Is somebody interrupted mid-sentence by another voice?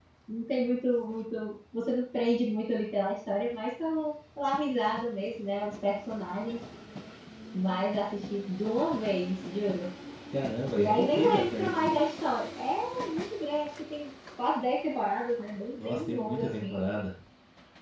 Yes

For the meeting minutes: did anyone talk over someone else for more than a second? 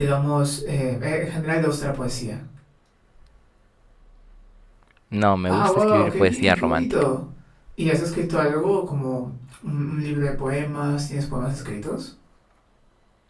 Yes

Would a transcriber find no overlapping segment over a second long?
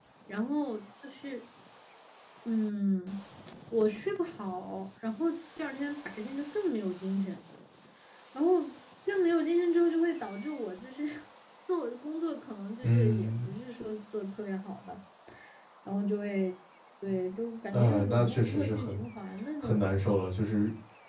No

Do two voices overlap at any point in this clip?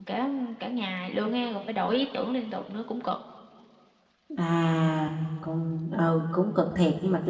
No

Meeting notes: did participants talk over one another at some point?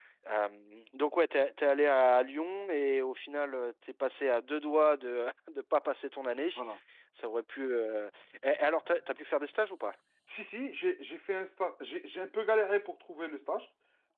No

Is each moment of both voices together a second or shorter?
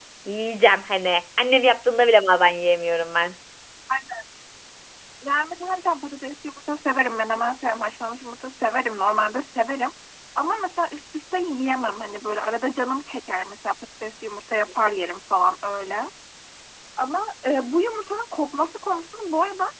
Yes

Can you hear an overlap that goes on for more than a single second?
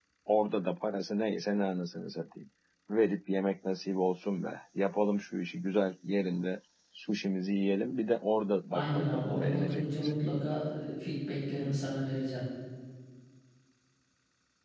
Yes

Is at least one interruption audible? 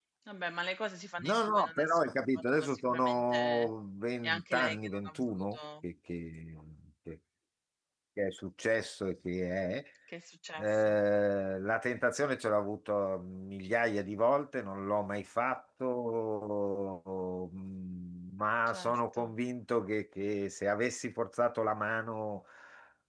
Yes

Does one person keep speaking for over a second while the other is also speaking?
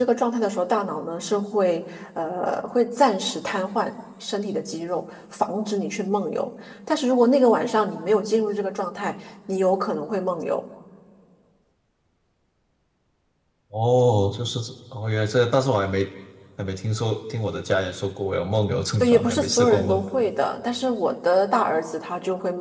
Yes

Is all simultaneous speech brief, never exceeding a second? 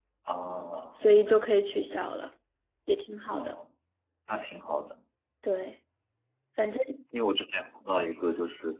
Yes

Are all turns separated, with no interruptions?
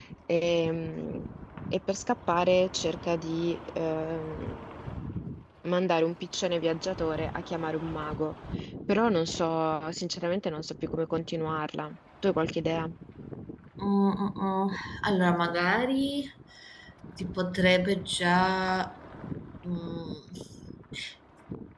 Yes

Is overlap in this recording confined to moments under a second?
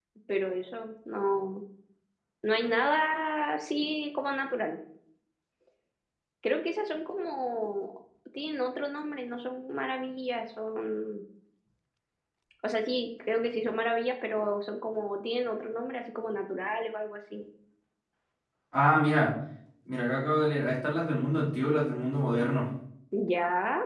Yes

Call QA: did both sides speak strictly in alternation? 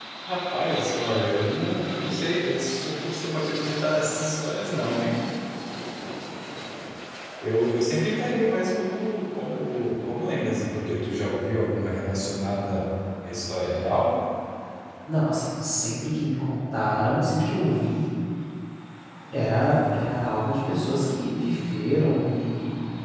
Yes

